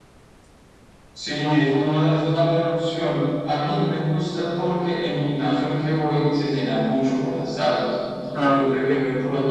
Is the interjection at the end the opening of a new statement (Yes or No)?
No